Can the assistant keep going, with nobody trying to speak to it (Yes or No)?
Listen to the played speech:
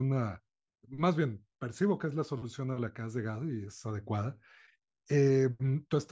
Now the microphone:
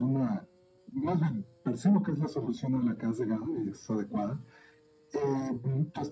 Yes